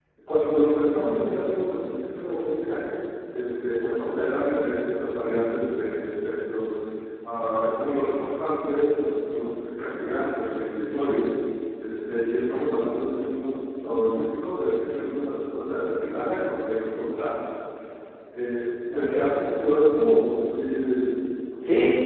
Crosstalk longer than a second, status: none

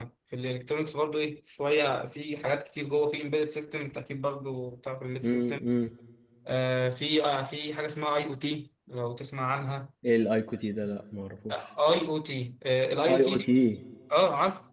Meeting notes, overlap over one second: none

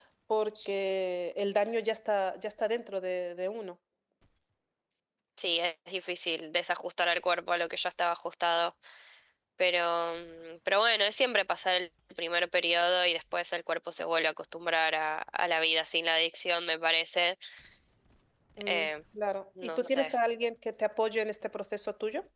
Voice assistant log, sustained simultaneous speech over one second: none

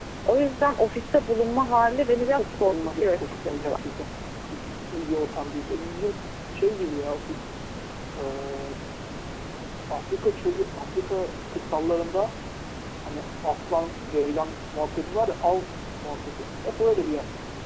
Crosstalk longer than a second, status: present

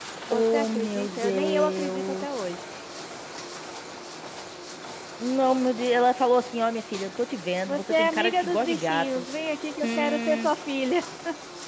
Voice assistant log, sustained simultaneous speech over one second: present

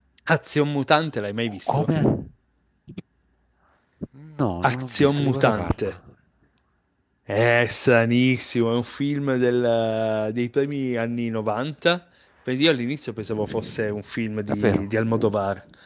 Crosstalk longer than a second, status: present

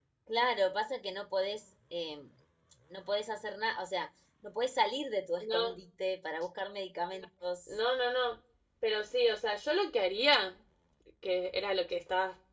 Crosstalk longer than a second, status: none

